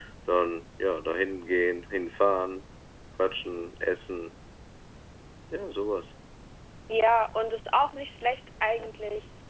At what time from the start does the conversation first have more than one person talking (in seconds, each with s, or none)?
none